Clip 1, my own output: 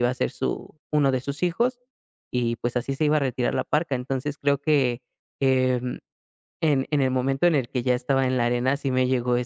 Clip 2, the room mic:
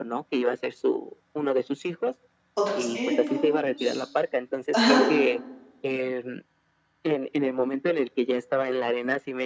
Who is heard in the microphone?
both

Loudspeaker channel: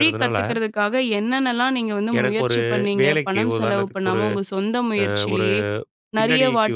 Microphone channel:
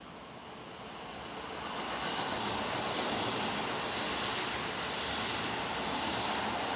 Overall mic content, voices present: neither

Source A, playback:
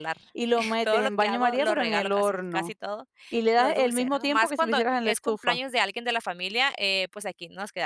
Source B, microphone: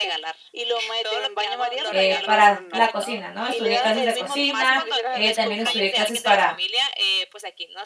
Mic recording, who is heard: both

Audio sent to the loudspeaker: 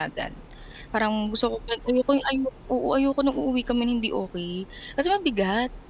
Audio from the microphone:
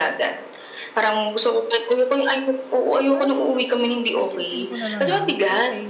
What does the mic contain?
both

